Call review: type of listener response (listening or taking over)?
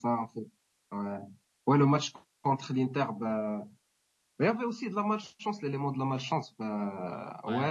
listening